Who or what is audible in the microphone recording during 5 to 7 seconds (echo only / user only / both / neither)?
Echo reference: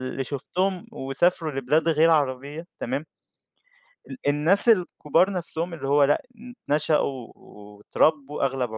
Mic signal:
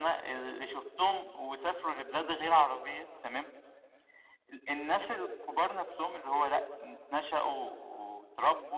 echo only